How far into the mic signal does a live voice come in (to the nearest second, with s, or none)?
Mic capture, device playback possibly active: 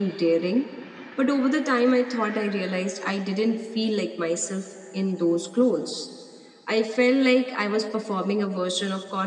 none